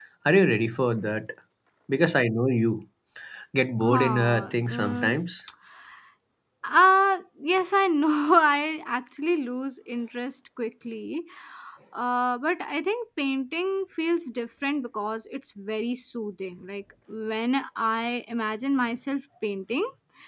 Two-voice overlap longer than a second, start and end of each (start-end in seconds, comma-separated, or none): 3.8-5.1